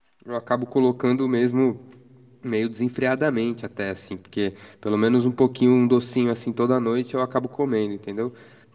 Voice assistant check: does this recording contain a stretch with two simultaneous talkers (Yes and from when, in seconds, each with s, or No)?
No